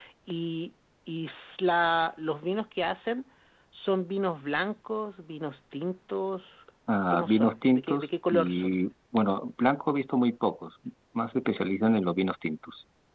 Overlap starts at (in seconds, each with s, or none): 7.1 s